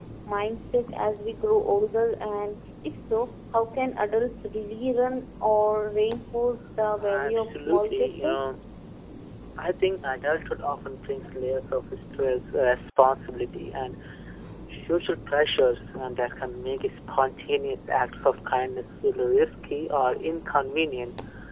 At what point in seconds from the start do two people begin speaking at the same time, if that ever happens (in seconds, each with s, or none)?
7.0 s